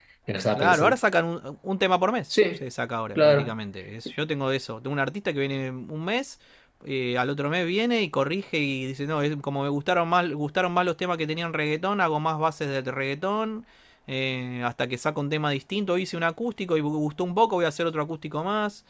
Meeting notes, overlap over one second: none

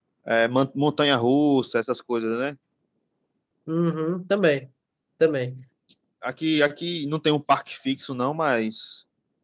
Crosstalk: none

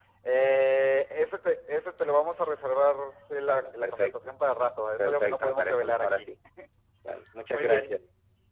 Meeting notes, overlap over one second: present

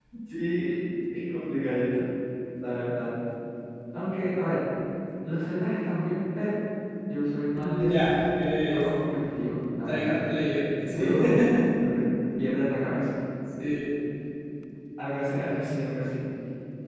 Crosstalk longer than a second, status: none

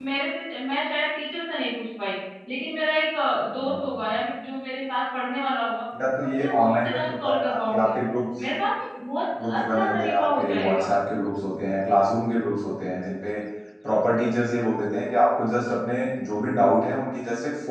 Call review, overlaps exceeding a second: present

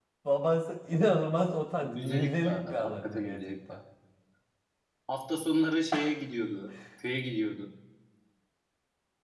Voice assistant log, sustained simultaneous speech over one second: present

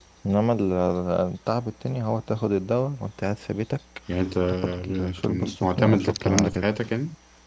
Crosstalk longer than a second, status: present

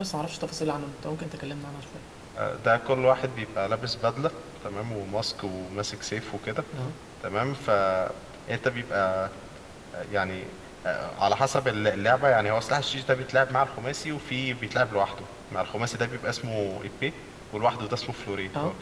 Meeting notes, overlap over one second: none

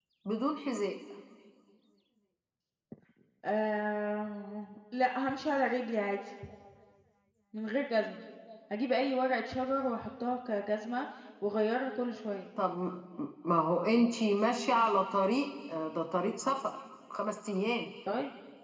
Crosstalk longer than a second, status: none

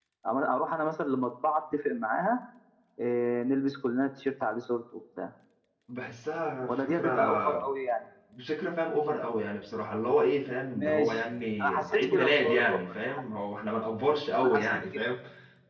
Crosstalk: present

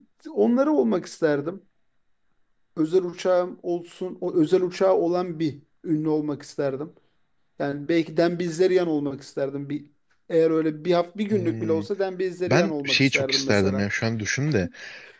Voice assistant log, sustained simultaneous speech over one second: present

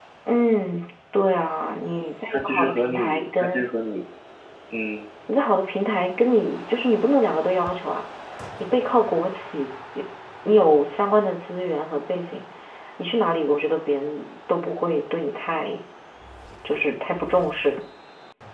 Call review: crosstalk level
present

